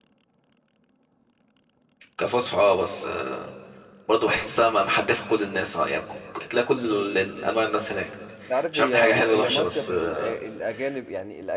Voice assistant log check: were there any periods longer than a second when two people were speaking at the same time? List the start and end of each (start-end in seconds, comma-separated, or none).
8.7-10.2